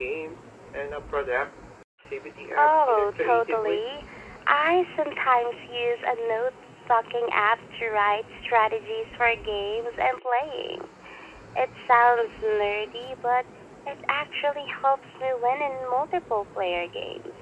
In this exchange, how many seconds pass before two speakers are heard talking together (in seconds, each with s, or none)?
2.5 s